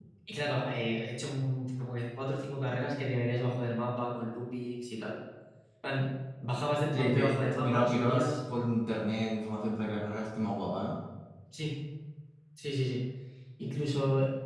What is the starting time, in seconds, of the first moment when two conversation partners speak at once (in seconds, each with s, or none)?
6.9 s